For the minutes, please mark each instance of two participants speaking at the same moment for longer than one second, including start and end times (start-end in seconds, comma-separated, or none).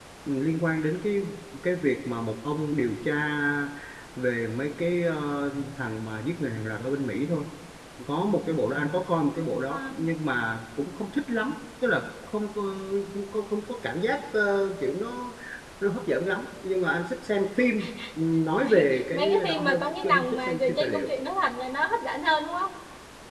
18.6-21.1